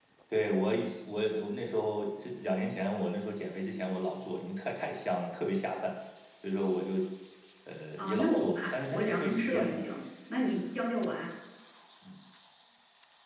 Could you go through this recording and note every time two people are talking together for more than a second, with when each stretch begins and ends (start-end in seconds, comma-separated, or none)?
8.0-9.9